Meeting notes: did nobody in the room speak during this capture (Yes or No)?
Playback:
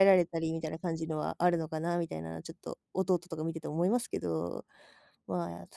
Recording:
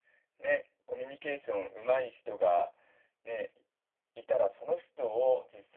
No